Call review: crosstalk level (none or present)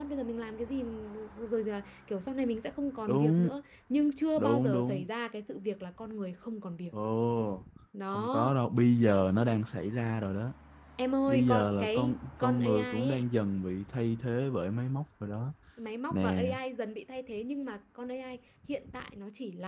present